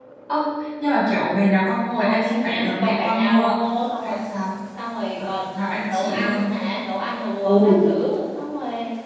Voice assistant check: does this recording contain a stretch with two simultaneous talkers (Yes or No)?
Yes